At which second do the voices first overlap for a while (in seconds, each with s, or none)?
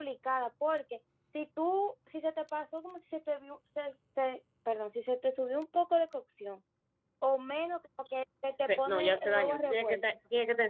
8.6 s